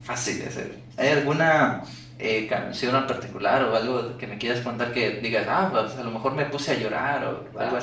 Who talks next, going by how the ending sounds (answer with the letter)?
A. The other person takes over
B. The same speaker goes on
A